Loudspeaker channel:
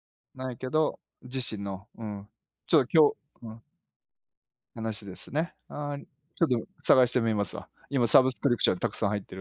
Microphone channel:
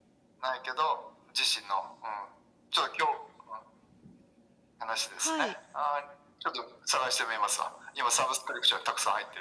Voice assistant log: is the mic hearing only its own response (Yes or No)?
No